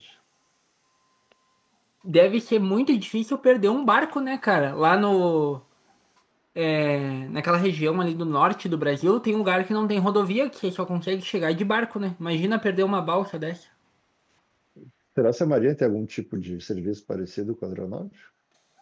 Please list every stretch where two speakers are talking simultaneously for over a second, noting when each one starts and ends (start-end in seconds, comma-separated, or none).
none